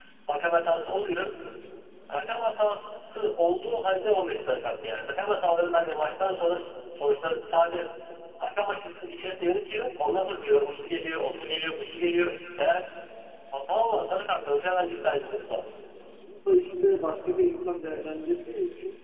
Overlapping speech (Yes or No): No